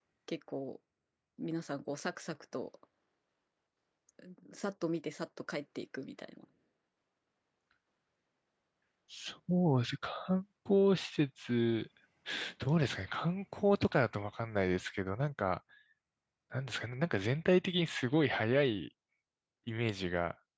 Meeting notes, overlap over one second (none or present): none